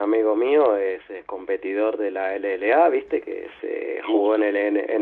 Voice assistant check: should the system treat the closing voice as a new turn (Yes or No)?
No